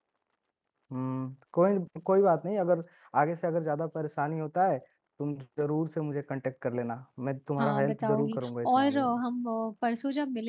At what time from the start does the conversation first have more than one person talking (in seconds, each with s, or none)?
7.6 s